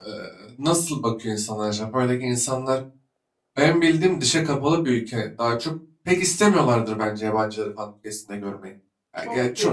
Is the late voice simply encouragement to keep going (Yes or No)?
No